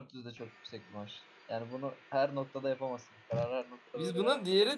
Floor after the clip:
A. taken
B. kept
A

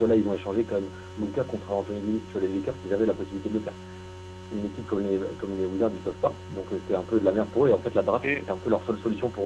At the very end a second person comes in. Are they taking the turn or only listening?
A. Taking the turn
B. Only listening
B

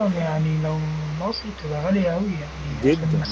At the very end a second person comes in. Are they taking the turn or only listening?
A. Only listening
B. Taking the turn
B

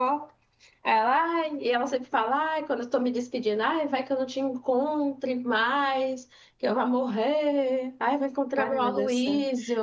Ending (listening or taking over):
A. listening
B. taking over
B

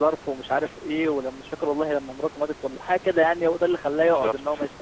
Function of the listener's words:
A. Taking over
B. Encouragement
B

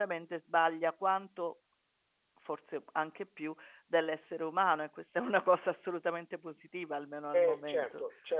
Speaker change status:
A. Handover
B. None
A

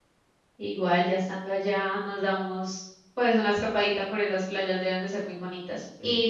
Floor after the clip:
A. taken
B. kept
B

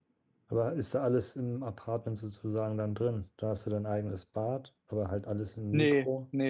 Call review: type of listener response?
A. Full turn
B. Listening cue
A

